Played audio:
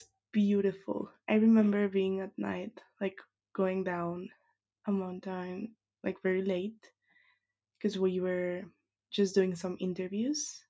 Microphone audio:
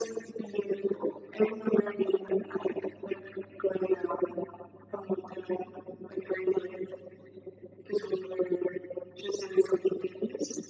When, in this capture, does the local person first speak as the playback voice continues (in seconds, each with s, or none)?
none